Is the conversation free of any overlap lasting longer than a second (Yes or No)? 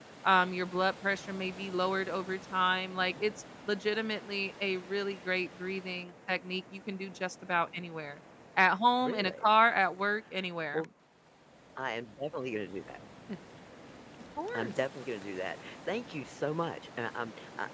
Yes